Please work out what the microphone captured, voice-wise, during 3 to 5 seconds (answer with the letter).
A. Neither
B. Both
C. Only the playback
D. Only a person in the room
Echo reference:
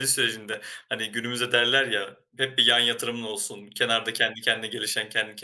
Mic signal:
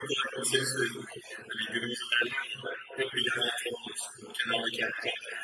C